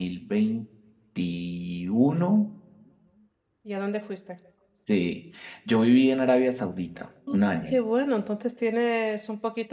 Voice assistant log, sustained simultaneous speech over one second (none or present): none